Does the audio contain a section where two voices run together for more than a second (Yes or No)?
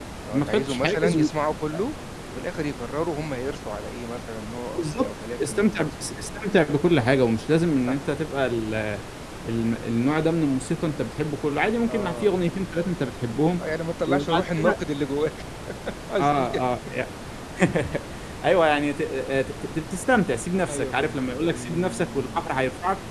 Yes